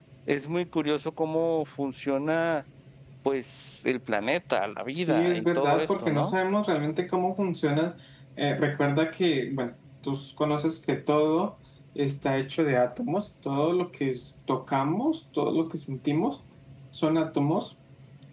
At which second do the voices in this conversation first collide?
4.9 s

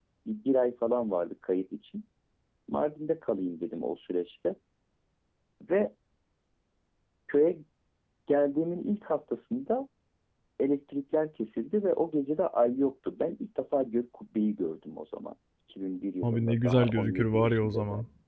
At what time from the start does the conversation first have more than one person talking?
16.2 s

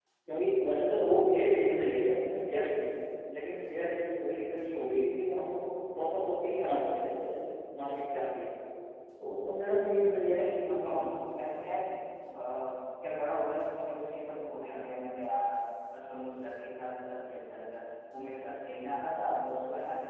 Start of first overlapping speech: none

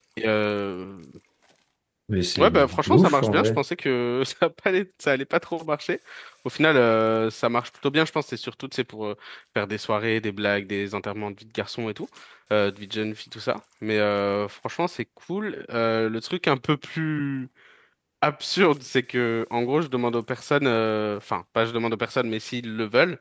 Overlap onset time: 2.4 s

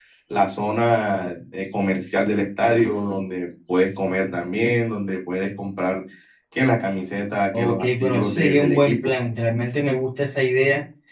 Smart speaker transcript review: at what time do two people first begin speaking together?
7.5 s

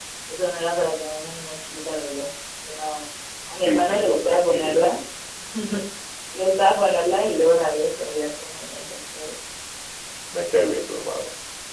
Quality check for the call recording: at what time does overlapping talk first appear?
3.6 s

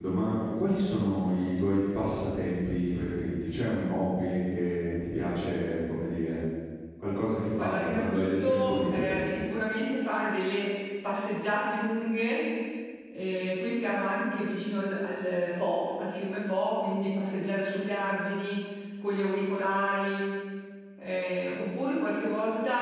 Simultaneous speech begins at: 7.6 s

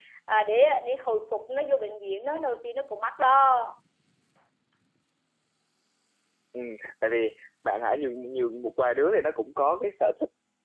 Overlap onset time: none

